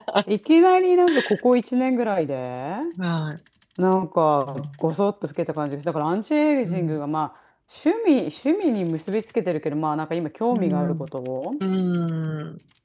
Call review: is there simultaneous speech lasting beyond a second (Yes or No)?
No